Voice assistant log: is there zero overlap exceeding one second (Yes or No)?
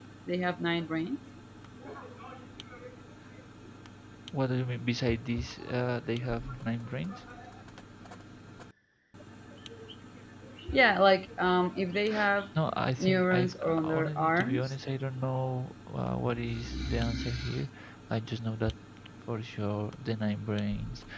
No